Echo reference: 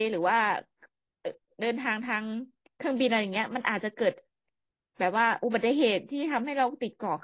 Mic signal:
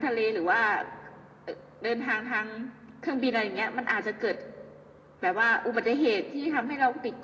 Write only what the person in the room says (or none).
none